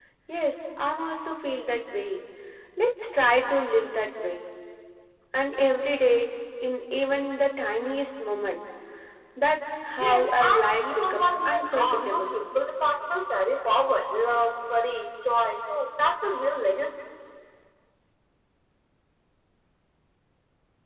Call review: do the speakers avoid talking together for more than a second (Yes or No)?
No